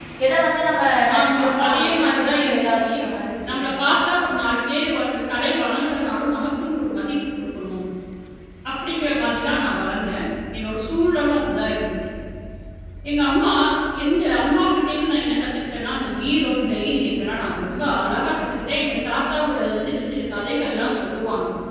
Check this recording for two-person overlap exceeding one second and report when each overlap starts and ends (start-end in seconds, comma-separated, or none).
1.2-2.9